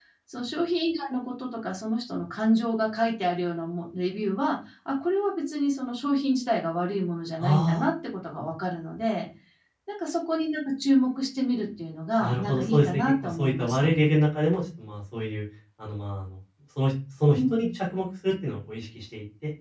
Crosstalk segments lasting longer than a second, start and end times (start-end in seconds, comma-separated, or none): 12.2-13.9